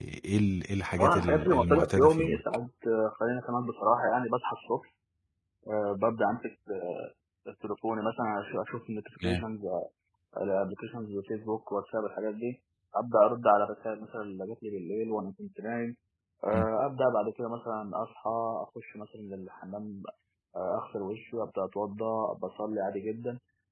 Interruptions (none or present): present